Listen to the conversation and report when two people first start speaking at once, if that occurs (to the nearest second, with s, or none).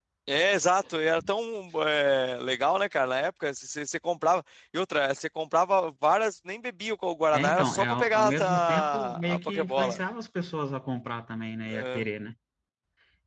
7 s